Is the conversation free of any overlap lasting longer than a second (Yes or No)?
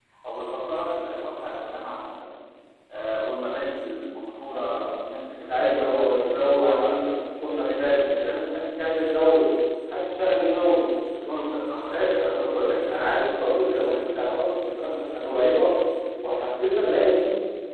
No